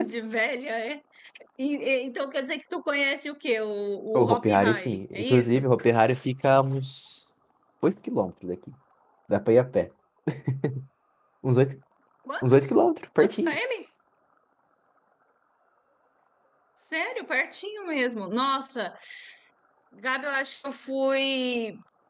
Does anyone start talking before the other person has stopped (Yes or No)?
Yes